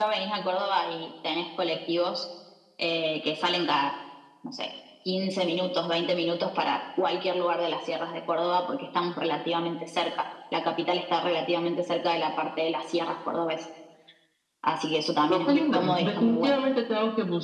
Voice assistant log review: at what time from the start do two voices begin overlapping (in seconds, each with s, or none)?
15.3 s